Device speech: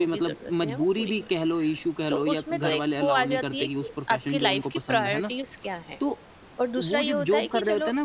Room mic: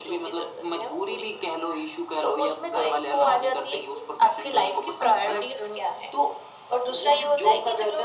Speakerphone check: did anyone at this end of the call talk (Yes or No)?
Yes